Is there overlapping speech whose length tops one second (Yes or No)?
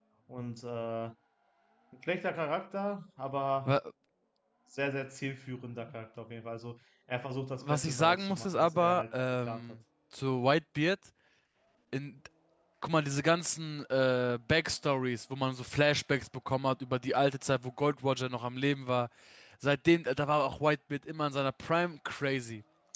Yes